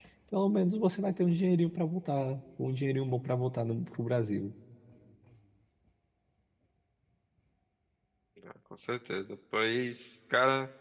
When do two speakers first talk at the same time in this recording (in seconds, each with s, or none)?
none